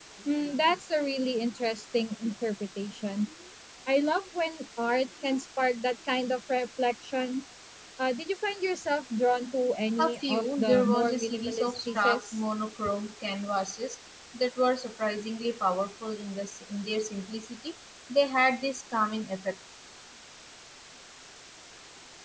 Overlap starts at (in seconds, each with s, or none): 10.0 s